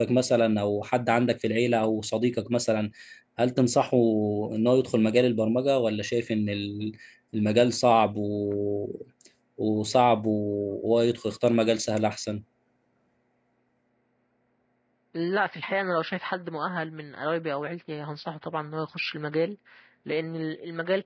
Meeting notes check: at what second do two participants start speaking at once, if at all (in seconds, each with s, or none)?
none